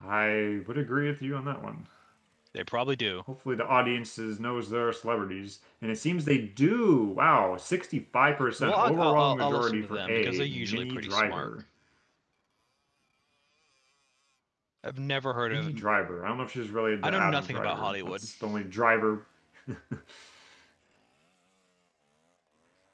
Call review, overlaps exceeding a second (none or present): present